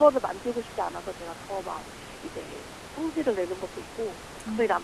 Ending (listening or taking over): listening